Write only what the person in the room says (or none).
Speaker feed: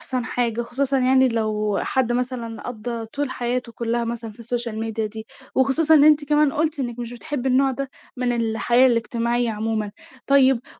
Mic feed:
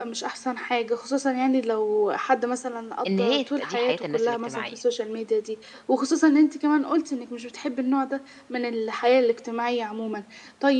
إن هي تبقى دي حياة الناس الاجتماعية،